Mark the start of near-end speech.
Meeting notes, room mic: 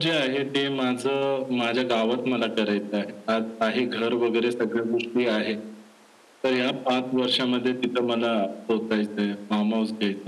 none

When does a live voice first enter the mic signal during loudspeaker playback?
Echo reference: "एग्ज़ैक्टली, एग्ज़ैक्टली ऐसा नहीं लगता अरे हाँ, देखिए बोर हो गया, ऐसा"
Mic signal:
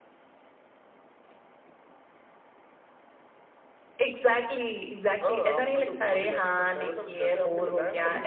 5.2 s

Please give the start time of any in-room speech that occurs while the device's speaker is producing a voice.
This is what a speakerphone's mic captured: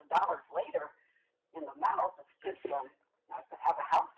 2.4 s

